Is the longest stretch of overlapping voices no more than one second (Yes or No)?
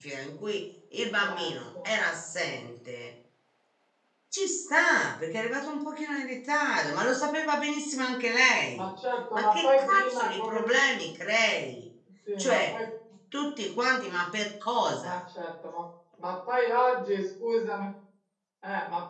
No